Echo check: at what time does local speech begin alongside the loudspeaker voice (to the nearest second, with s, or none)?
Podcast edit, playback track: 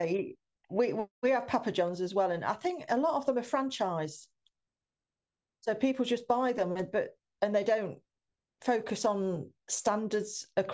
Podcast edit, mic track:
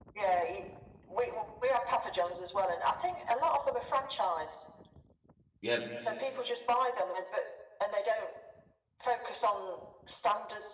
6 s